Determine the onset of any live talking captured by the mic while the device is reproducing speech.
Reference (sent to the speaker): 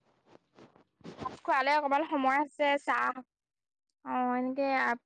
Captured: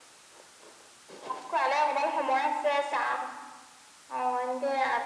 none

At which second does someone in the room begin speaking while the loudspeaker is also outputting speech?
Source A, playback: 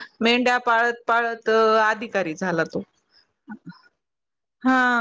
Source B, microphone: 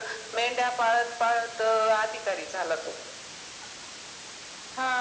none

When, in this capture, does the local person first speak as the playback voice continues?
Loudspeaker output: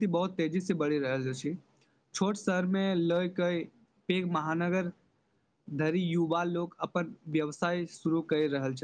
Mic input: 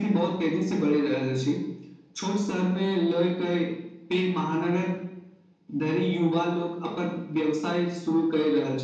none

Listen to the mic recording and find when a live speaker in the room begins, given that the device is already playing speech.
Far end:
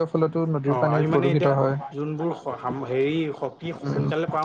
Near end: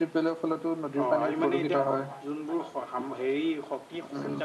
none

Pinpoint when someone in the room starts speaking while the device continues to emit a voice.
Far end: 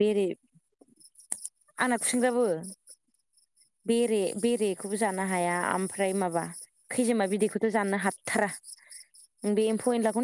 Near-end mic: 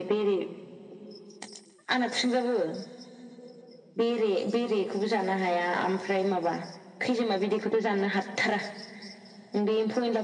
none

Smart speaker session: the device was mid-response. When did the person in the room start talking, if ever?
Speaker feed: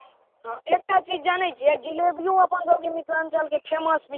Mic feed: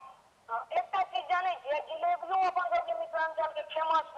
none

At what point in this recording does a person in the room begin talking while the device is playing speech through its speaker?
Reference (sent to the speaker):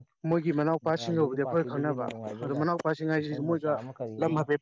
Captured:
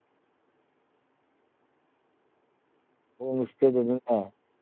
3.2 s

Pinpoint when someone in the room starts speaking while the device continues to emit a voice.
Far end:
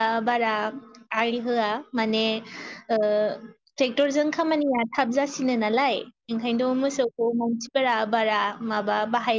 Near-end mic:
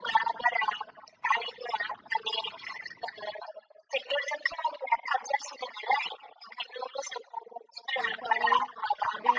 8.0 s

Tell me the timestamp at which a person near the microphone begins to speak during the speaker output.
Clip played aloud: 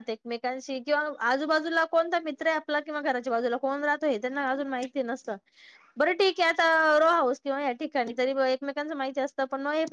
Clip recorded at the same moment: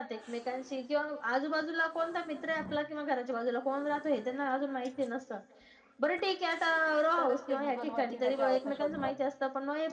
7.2 s

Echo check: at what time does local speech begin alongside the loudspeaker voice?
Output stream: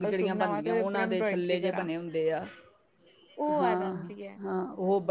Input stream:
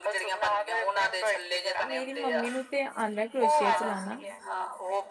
1.9 s

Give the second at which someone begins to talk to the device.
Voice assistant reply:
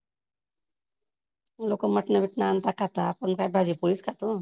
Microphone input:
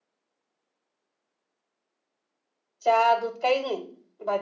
2.8 s

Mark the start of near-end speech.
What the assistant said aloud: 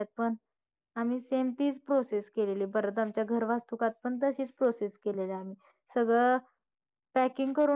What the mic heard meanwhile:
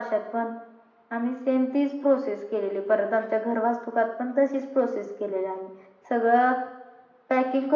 none

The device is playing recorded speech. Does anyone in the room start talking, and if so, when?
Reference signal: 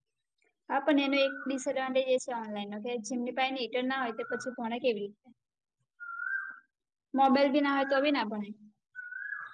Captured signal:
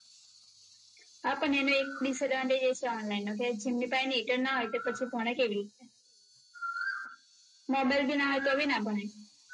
none

